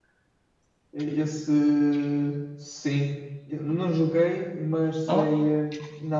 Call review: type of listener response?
listening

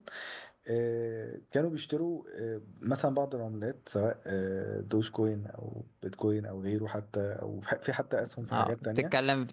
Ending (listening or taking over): taking over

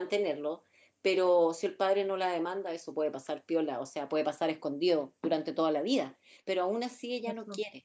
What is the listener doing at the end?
listening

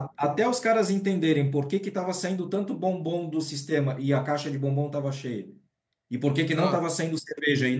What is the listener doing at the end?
listening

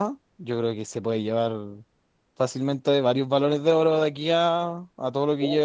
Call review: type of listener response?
taking over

